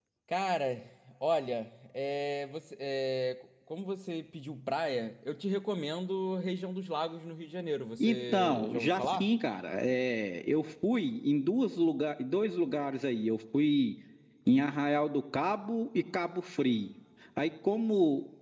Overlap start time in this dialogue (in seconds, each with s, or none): 8.0 s